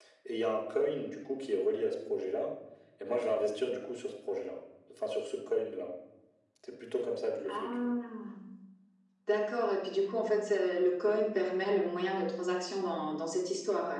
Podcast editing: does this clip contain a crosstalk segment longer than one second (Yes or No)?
No